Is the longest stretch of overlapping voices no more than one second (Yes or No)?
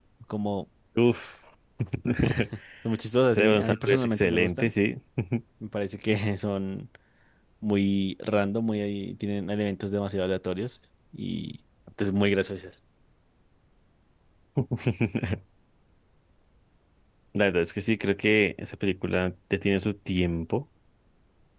No